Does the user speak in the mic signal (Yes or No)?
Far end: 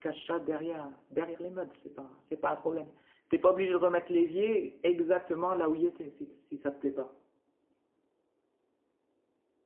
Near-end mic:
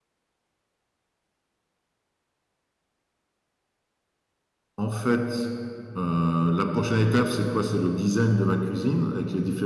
Yes